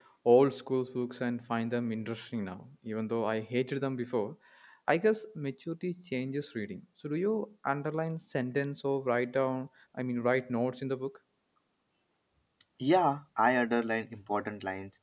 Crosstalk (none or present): none